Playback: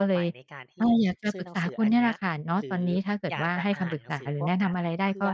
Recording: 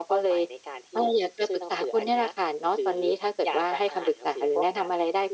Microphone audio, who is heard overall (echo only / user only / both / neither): echo only